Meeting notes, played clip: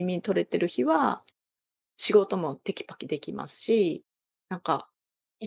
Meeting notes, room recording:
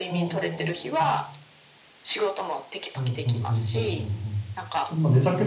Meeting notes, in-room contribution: present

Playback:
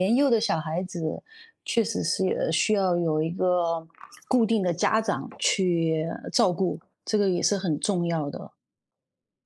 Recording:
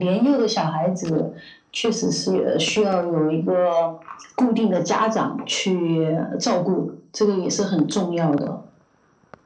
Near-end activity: none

